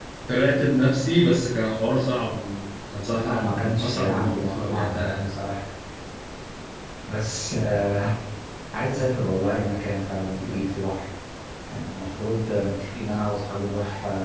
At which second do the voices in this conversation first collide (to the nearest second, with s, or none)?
3 s